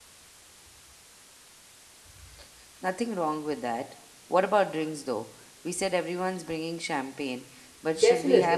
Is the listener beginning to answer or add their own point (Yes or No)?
Yes